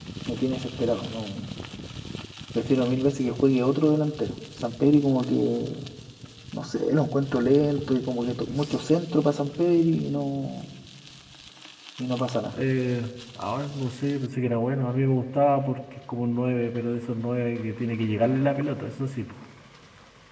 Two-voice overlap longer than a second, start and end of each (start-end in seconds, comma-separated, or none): none